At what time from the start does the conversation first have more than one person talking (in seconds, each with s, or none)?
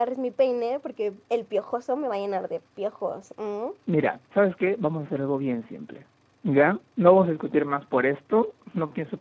none